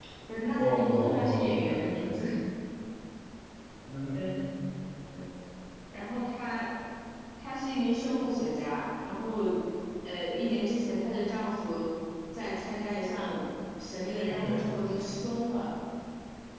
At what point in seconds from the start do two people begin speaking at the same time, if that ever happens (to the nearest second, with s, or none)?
1 s